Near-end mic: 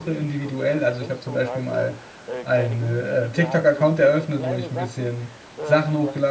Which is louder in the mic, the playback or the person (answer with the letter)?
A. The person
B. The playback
A